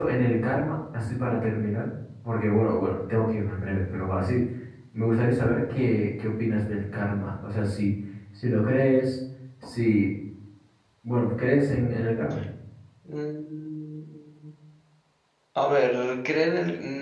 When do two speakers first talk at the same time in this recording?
none

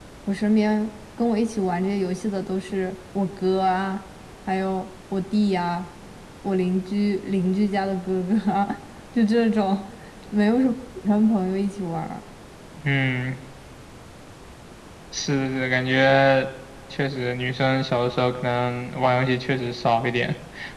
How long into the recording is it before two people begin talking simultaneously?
none

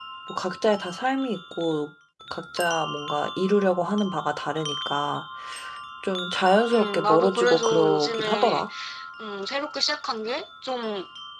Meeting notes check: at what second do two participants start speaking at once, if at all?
6.7 s

